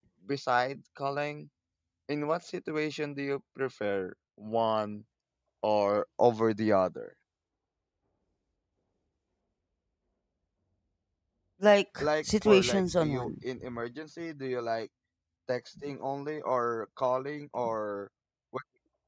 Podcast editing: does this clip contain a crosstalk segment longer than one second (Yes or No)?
Yes